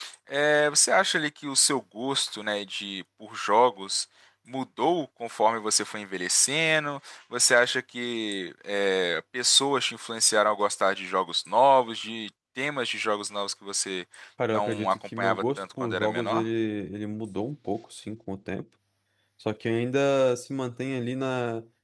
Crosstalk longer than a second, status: present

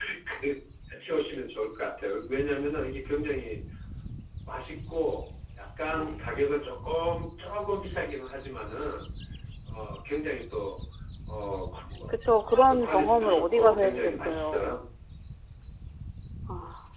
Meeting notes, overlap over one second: present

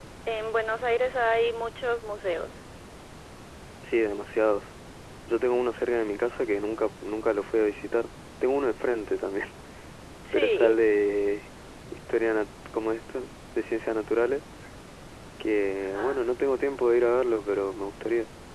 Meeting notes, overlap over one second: none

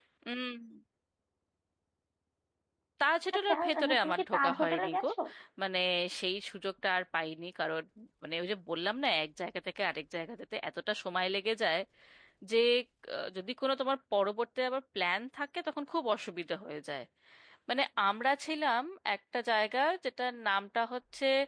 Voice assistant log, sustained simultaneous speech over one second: present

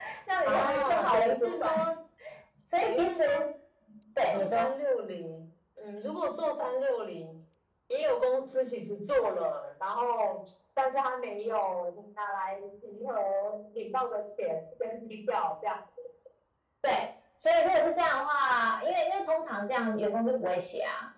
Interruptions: present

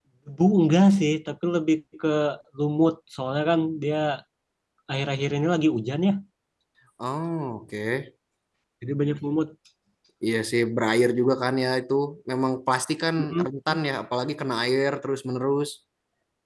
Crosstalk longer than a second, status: none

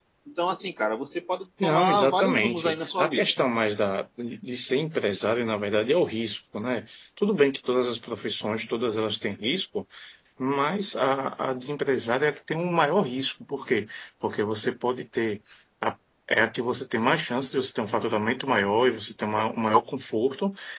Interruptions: present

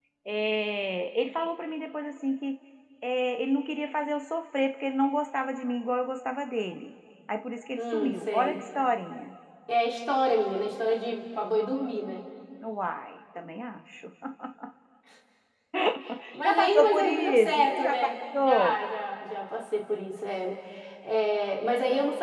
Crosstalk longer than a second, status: present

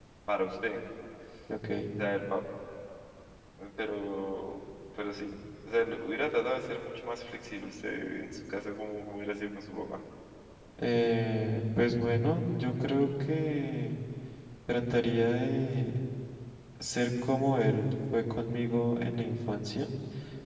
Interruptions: none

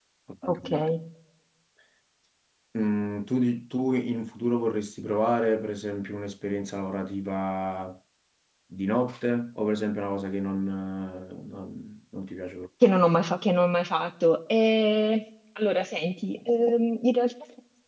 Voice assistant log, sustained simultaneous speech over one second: none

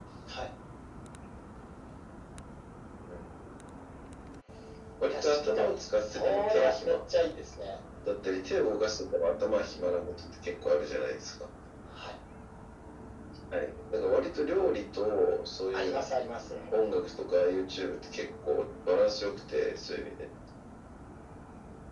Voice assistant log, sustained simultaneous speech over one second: present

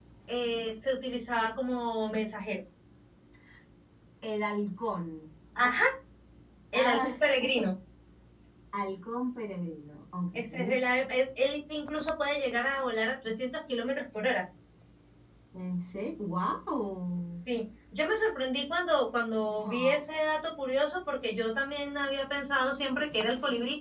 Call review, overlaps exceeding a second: none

